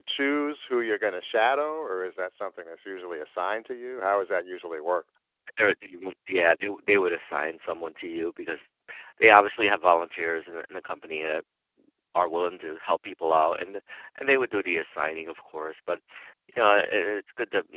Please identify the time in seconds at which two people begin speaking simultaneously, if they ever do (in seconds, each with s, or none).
none